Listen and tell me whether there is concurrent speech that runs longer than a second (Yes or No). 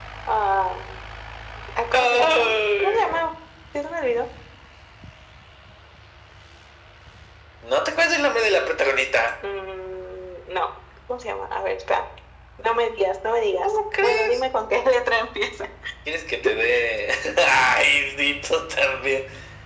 Yes